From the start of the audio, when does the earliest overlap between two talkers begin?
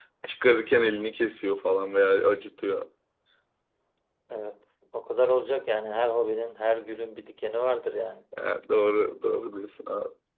none

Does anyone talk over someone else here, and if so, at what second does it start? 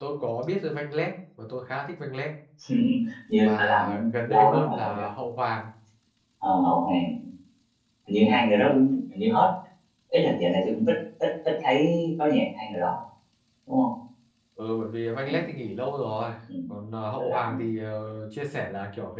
3.4 s

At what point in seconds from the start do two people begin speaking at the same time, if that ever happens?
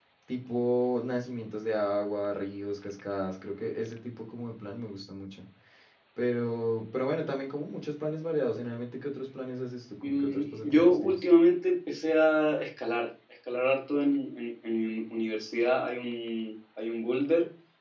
10.0 s

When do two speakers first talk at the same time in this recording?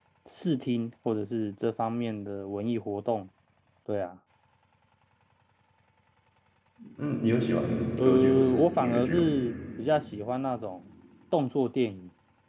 8.0 s

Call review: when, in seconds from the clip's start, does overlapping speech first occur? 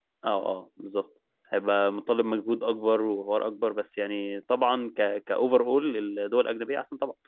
none

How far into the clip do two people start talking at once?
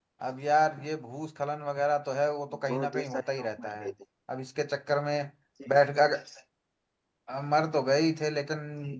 2.5 s

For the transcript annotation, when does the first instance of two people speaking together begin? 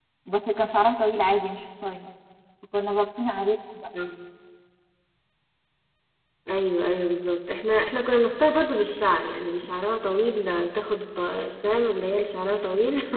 none

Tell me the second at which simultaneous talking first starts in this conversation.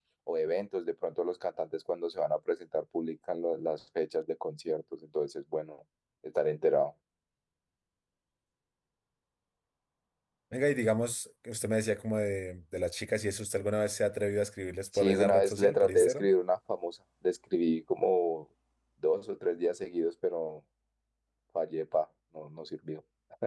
14.9 s

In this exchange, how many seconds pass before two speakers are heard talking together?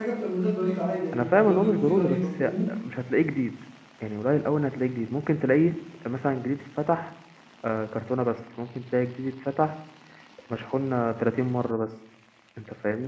1.1 s

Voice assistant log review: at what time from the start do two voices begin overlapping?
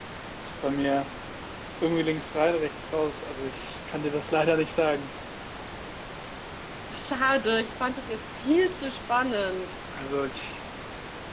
none

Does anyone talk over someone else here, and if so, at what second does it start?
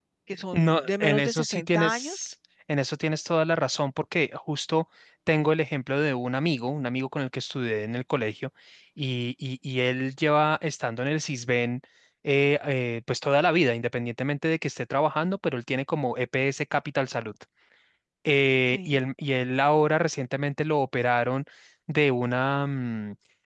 0.5 s

